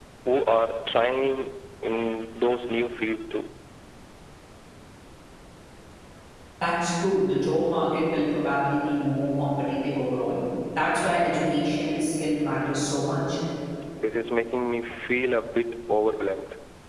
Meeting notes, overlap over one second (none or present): none